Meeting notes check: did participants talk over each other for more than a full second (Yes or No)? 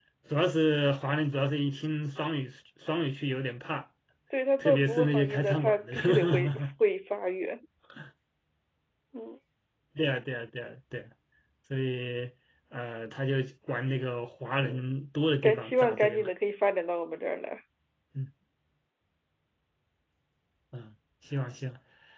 Yes